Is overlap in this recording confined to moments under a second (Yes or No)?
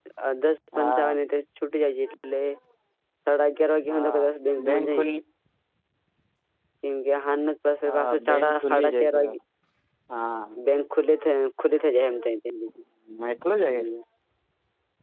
No